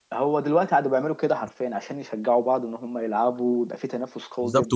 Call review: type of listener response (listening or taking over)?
taking over